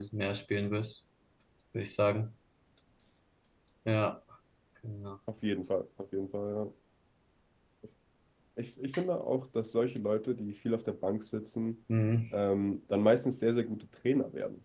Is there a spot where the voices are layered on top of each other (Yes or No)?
No